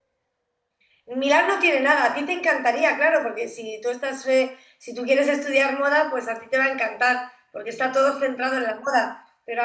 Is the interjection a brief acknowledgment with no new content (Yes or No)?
Yes